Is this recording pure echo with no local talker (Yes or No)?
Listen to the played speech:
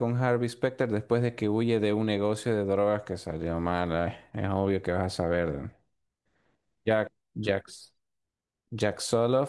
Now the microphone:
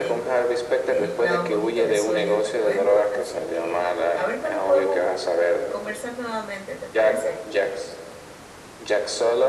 No